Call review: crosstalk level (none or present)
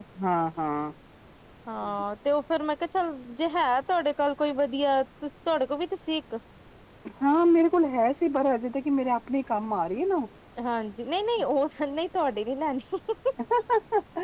none